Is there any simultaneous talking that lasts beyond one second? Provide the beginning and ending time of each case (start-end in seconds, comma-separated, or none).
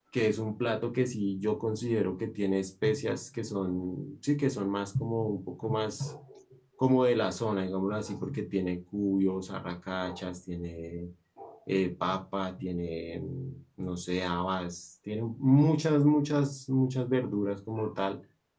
none